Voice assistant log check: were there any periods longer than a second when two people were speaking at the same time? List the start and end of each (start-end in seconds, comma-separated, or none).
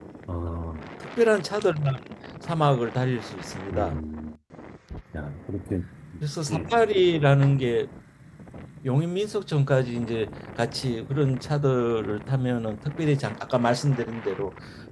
none